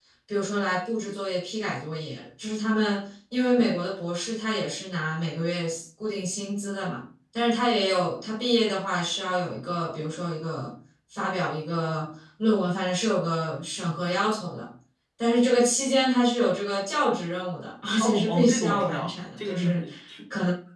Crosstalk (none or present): present